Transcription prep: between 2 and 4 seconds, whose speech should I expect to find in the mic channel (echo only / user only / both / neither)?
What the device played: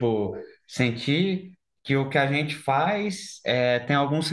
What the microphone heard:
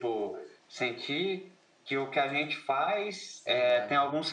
both